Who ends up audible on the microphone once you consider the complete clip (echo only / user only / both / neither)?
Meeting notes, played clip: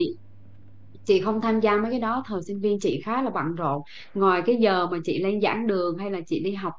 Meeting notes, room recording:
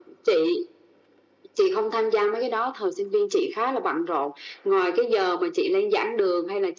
echo only